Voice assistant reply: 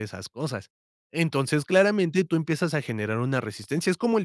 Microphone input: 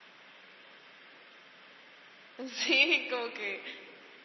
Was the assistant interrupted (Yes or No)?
Yes